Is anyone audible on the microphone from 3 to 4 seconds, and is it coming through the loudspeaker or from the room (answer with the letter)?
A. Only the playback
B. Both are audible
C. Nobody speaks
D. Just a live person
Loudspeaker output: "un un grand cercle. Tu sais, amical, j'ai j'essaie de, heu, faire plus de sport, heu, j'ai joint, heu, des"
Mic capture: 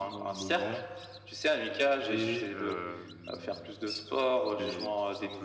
B